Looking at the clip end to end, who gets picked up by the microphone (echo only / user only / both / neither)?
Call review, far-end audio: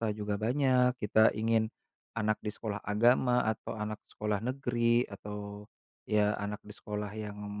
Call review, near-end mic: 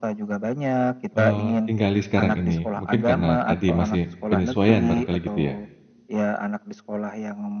both